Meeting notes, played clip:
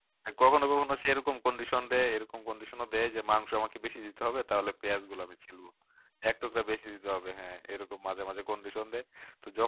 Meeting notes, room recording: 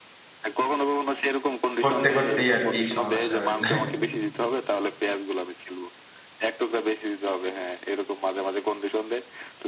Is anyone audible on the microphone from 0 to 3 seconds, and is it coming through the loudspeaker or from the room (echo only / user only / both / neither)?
both